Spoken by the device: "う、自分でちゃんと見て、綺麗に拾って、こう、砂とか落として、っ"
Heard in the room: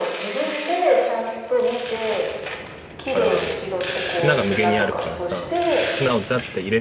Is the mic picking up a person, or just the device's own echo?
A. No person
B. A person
B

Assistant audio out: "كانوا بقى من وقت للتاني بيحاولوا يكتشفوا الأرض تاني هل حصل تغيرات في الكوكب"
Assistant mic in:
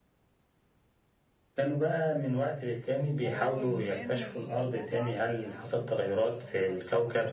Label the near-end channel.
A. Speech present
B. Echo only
A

